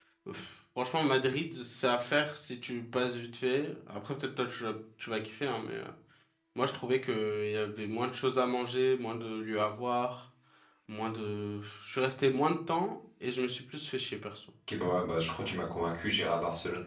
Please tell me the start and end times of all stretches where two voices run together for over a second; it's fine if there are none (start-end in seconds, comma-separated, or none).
none